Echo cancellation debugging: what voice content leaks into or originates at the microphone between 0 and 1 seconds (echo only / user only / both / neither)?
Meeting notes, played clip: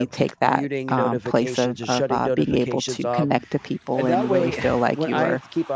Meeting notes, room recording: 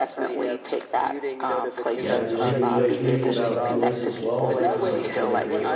echo only